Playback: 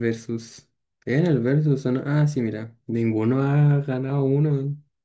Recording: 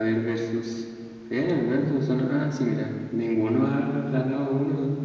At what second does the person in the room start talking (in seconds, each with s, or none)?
none